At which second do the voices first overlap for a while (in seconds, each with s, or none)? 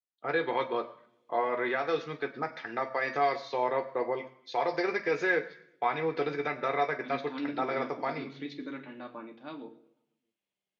7.0 s